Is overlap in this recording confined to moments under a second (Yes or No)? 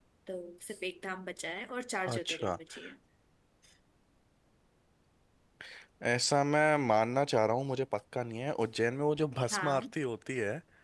Yes